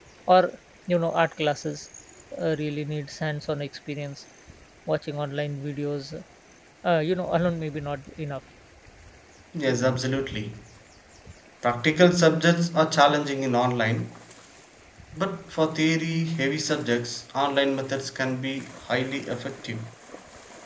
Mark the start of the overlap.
none

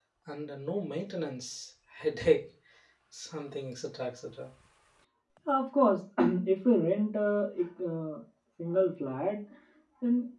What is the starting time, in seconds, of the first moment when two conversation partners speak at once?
none

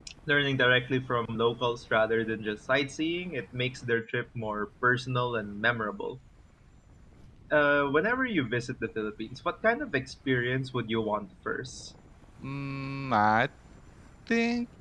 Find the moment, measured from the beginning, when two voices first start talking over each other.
none

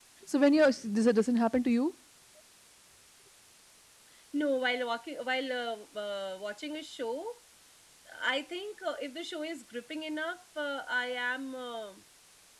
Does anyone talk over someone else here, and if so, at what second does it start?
none

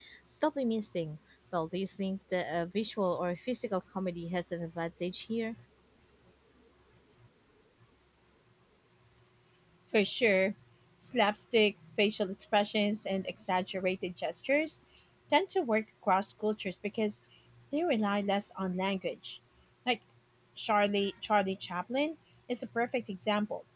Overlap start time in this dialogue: none

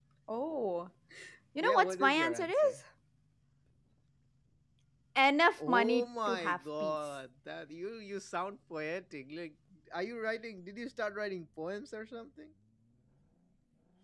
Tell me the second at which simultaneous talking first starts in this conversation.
1.6 s

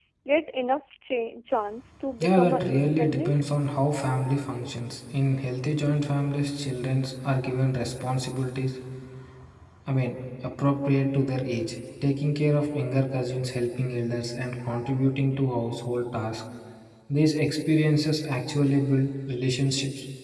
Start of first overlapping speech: 2.2 s

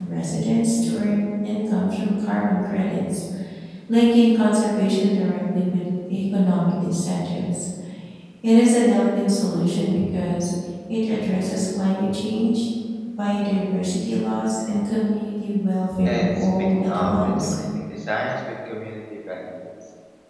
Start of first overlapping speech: 16.0 s

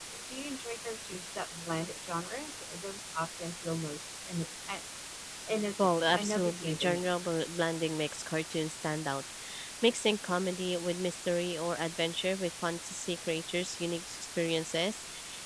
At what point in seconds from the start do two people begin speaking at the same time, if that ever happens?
5.8 s

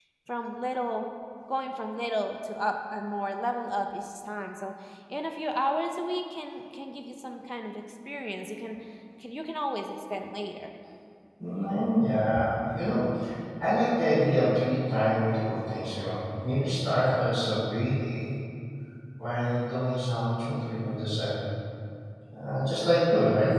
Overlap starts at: none

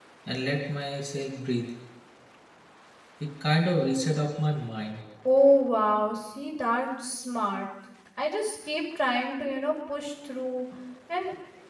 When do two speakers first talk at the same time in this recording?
none

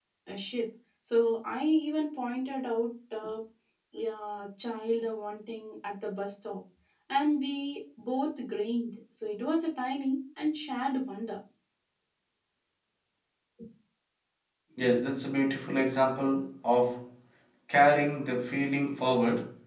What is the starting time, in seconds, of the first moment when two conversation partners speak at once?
none

